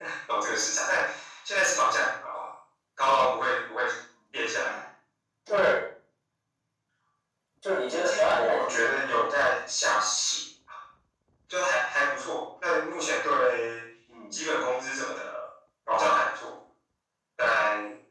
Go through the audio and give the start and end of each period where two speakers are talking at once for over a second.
7.9-9.1

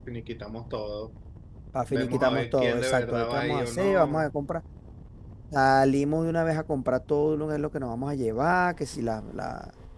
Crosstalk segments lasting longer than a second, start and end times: 1.9-4.3

